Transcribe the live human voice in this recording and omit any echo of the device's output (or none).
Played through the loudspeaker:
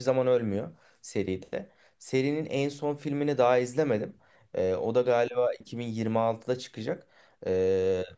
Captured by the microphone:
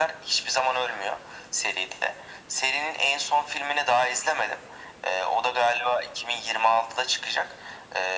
none